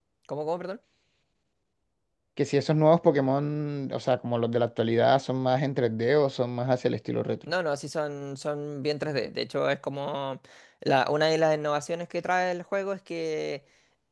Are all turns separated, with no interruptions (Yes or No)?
Yes